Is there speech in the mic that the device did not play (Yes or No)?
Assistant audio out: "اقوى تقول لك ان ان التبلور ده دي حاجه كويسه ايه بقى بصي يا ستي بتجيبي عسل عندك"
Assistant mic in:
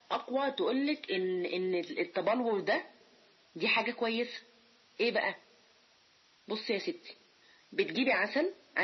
No